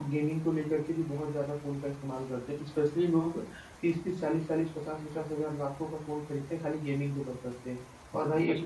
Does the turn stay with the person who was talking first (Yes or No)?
Yes